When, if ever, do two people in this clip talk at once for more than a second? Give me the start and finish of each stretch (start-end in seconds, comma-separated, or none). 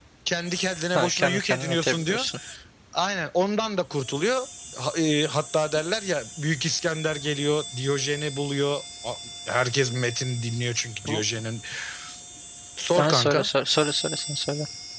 0.9-2.2